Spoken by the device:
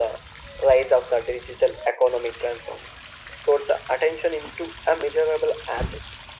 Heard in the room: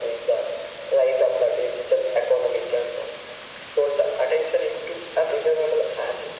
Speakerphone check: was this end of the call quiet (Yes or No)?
Yes